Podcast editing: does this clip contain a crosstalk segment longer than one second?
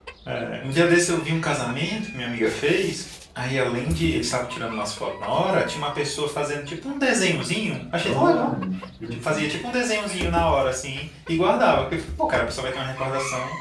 No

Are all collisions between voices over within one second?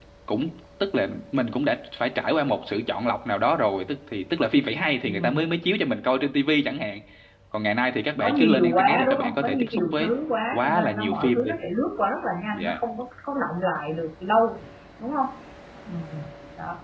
No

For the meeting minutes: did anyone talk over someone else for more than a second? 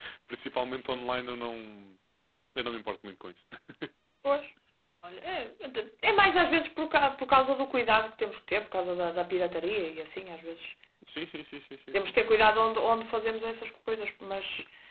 No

